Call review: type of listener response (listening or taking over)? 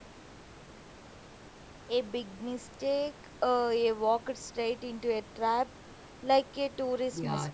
taking over